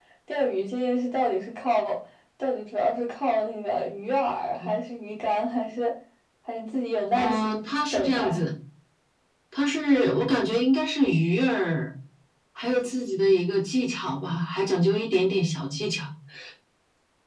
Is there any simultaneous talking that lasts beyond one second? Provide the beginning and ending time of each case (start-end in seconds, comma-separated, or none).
7.1-8.4